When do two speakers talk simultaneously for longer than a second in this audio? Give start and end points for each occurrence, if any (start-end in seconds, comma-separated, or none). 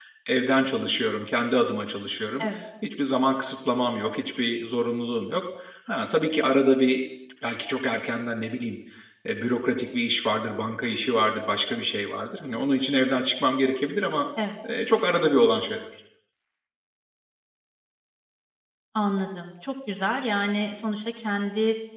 none